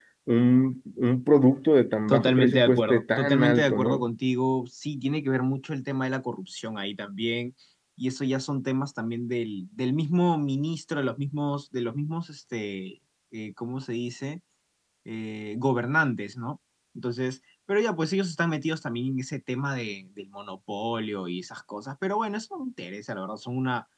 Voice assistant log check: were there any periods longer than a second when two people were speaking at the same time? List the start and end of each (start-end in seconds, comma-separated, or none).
2.1-4.0